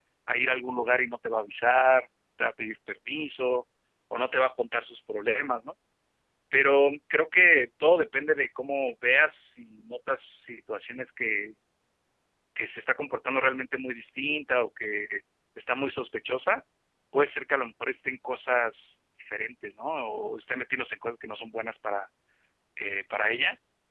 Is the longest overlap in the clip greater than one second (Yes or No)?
No